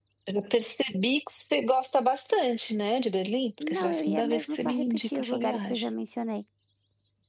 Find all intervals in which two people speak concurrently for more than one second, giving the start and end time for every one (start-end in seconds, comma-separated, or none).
3.6-5.9